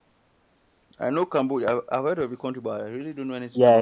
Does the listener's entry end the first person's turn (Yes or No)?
Yes